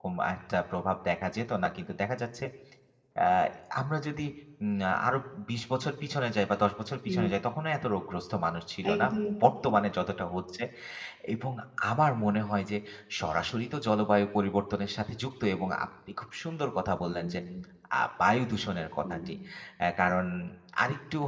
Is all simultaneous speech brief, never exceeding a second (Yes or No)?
Yes